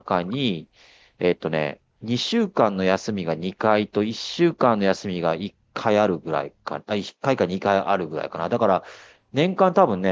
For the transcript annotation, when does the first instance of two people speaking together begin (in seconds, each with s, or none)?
none